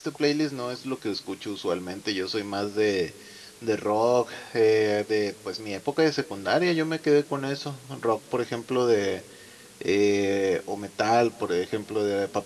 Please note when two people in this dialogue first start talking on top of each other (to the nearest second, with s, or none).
none